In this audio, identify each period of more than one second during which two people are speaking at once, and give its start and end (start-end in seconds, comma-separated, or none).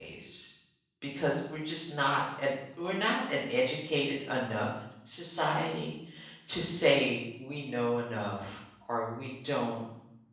none